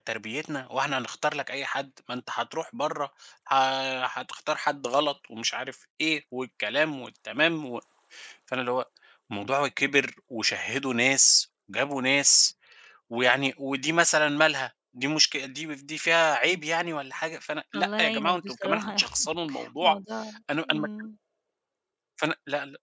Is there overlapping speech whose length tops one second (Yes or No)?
Yes